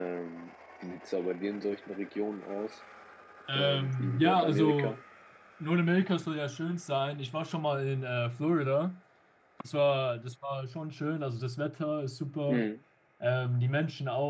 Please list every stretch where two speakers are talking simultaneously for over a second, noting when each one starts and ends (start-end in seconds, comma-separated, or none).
3.6-5.0